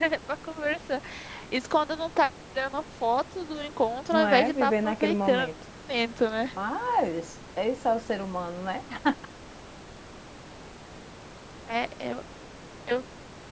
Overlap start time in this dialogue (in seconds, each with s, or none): 4.1 s